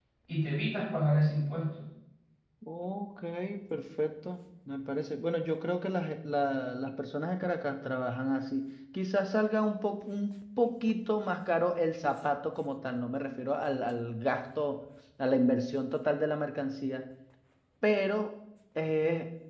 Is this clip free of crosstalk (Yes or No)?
Yes